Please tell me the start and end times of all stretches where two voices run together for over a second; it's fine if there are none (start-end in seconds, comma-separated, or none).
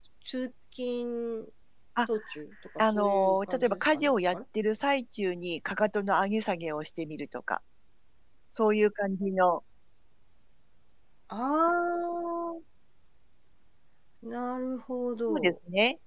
2.8-4.4